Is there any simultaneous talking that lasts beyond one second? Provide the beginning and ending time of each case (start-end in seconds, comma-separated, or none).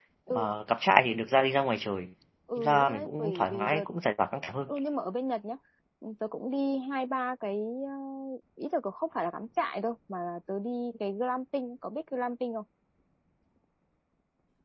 2.6-3.9